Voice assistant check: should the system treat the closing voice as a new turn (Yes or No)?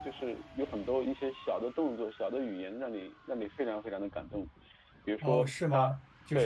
Yes